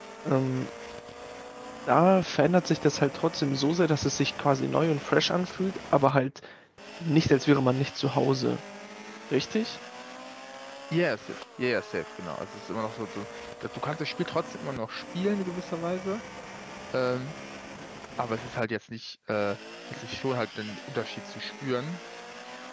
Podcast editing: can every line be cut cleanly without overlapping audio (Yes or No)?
Yes